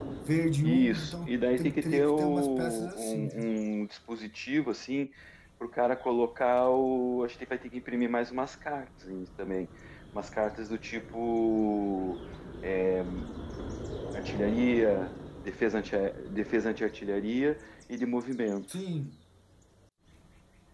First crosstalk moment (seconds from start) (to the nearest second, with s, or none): 1 s